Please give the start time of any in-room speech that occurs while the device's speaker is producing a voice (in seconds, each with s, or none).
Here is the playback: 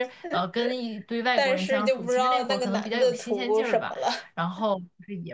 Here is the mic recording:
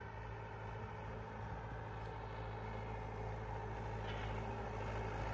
none